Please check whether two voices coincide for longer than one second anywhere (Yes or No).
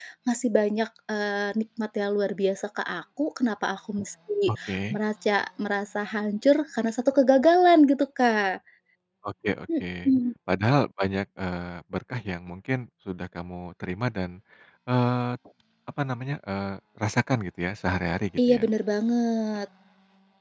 No